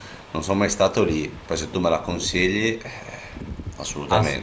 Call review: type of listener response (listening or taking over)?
taking over